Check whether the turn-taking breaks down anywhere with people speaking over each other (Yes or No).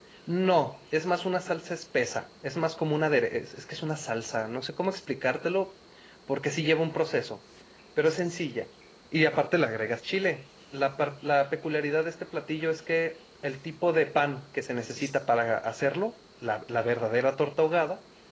No